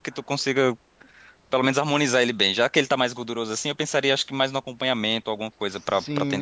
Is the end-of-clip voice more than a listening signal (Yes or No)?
Yes